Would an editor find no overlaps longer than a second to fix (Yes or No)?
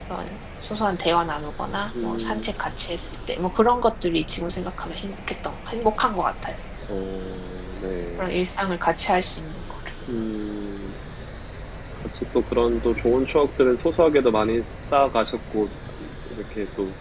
Yes